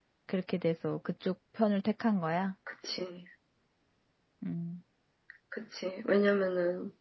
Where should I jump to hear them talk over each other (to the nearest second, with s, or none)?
none